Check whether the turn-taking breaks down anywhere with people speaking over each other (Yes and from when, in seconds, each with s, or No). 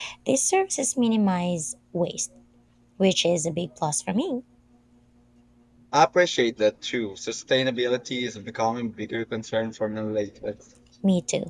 No